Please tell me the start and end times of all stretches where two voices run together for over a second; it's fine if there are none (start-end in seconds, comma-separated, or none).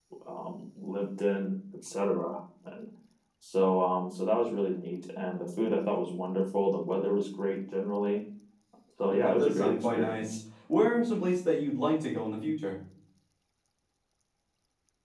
9.1-10.4